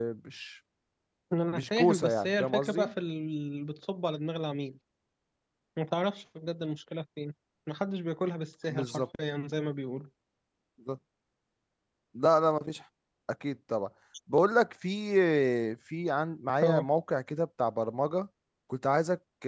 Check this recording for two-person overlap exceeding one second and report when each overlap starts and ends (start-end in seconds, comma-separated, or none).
1.5-2.9